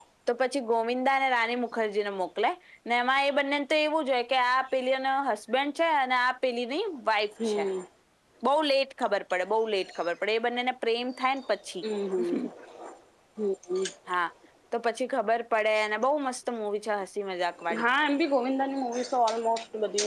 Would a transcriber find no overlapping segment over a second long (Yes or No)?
Yes